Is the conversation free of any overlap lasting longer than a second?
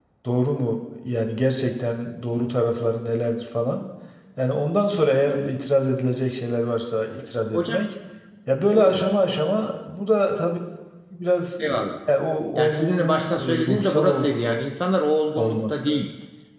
No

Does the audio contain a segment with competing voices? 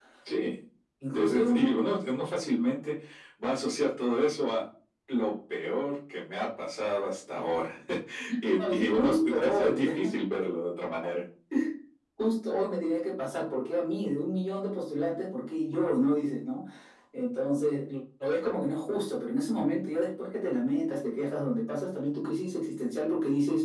Yes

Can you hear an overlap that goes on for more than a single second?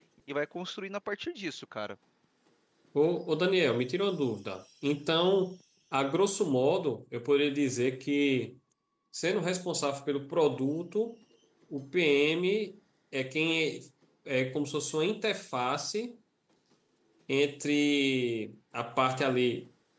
No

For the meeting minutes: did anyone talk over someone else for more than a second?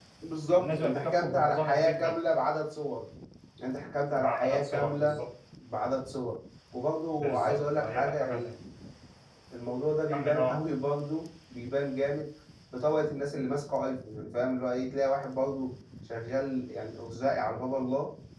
Yes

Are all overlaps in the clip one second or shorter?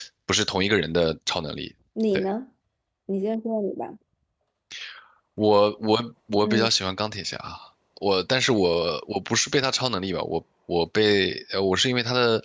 Yes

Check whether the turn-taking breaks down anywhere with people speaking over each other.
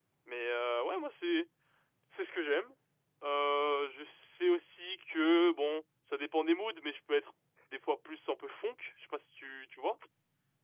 No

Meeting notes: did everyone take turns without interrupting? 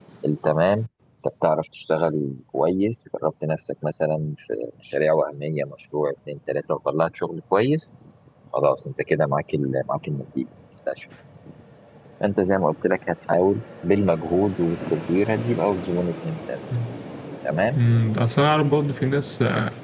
Yes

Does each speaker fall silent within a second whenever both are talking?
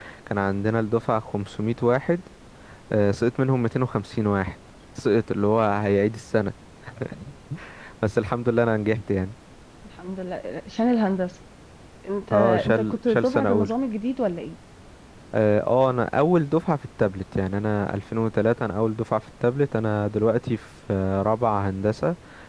No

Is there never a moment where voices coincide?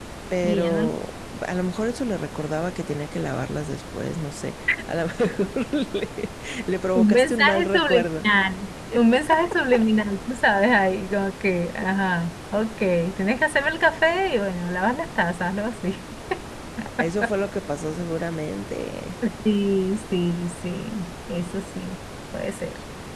No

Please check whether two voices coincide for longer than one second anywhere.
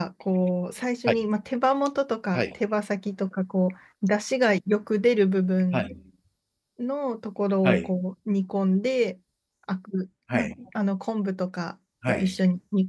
No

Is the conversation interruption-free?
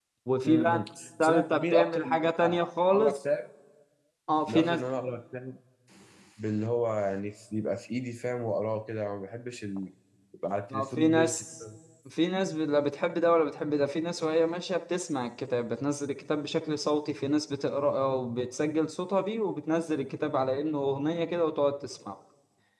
No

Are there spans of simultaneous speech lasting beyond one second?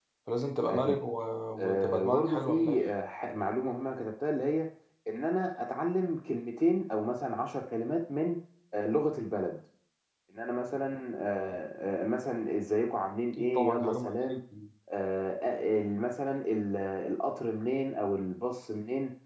Yes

